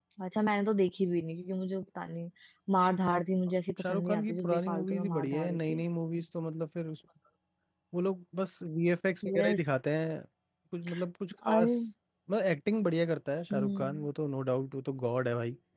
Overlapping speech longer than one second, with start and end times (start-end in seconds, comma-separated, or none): 3.8-5.9